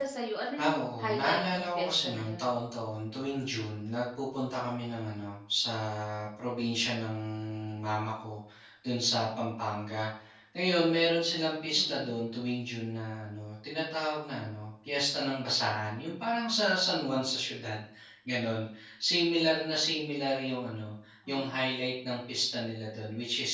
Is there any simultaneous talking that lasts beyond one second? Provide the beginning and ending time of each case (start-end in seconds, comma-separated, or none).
0.6-2.5